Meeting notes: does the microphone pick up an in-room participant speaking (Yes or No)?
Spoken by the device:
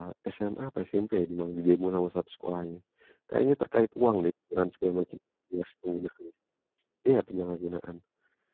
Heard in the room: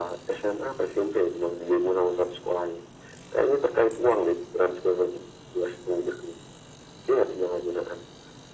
No